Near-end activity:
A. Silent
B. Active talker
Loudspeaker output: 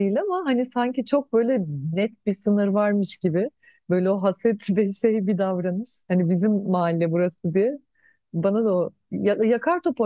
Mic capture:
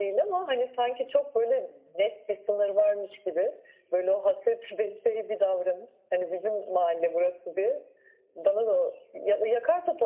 A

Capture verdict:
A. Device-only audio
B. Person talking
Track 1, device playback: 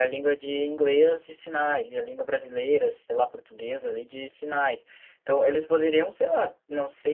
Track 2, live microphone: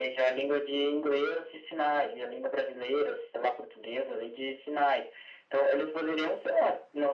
A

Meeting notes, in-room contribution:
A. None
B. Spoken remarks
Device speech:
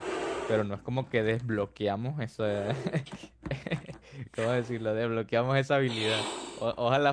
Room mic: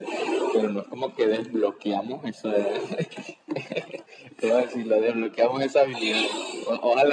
A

